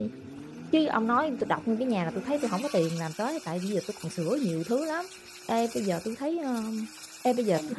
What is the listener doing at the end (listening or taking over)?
listening